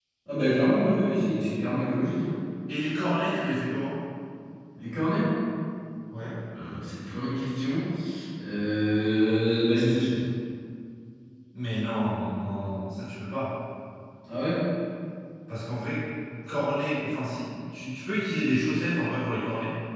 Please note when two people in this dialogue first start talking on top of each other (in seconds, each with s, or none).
none